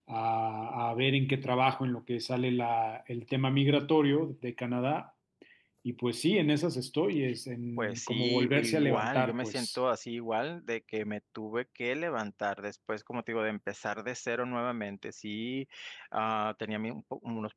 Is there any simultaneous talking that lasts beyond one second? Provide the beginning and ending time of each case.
7.8-9.8

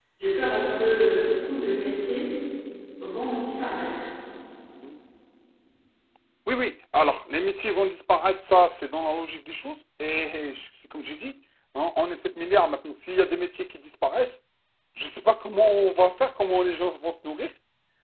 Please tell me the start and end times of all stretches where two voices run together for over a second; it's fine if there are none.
none

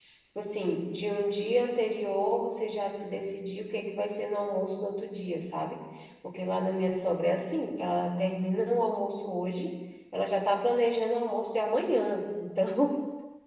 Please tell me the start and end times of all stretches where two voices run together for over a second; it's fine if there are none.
none

